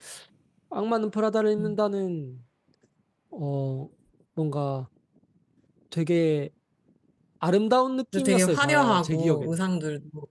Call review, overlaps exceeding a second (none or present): present